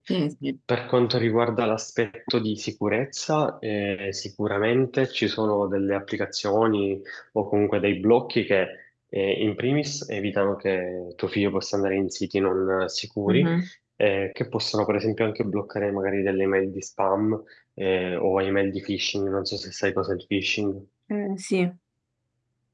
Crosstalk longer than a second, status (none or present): none